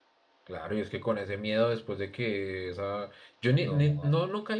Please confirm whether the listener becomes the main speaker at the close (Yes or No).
No